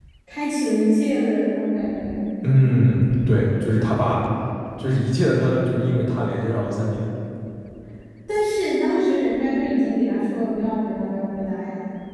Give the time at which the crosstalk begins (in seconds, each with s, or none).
none